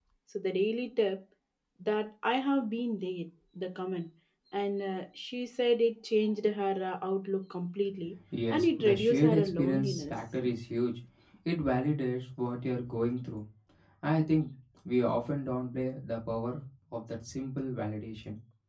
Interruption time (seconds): 8.3 s

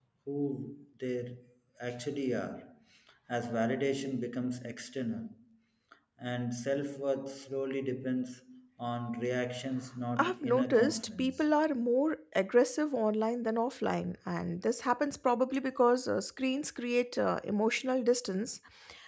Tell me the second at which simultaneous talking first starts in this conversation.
10.2 s

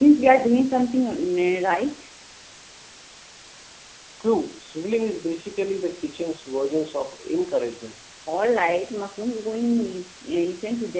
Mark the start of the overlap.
none

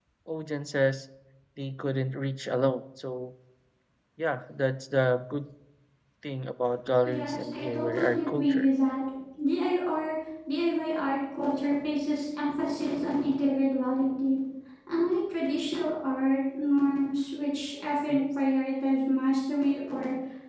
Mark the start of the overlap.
7.0 s

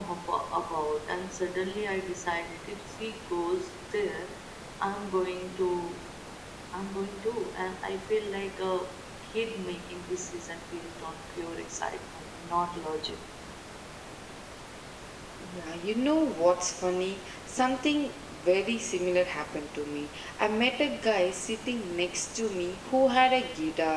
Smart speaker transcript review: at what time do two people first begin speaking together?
none

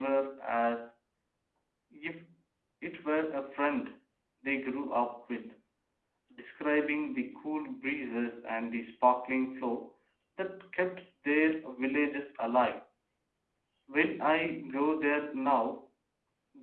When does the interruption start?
none

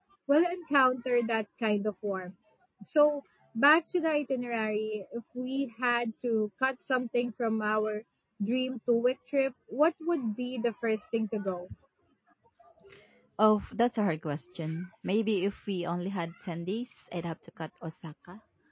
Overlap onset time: none

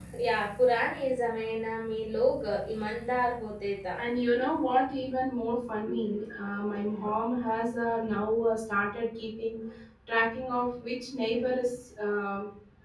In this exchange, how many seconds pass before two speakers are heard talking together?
none

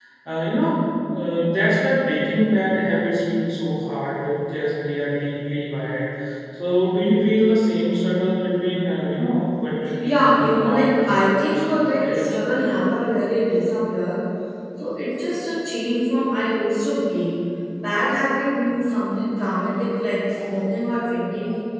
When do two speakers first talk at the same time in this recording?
10.0 s

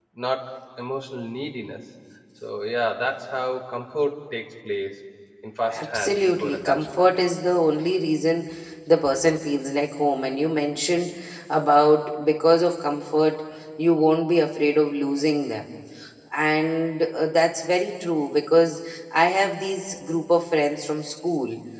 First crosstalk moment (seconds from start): 5.7 s

